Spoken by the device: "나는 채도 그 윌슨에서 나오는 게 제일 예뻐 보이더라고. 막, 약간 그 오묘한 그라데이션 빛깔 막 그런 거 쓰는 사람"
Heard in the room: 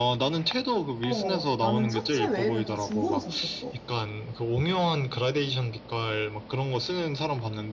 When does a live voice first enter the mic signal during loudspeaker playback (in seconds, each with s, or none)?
1.0 s